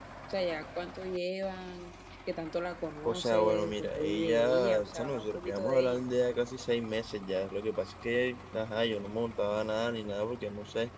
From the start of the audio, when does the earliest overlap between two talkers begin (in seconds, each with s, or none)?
3.0 s